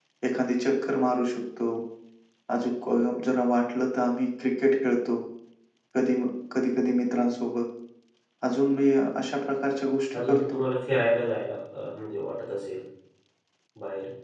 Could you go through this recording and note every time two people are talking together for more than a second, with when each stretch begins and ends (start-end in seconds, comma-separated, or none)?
none